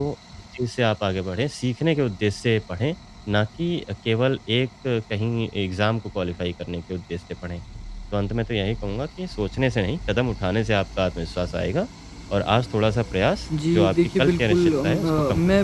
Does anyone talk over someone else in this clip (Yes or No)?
Yes